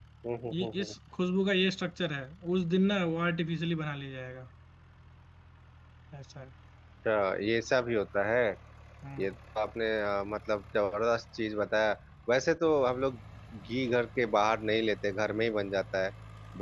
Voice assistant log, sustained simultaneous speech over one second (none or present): none